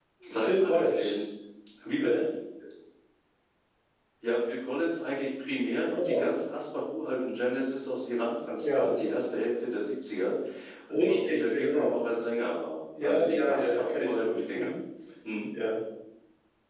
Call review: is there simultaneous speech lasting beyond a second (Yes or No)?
Yes